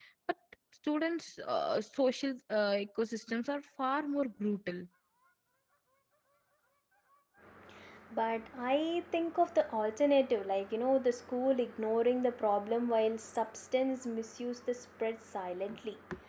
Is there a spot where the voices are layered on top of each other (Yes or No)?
No